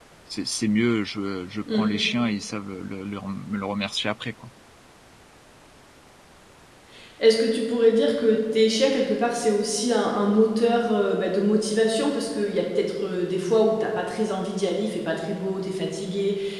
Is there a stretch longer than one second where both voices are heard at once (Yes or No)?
No